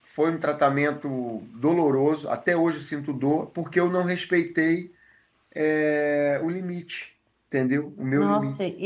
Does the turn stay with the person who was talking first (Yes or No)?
No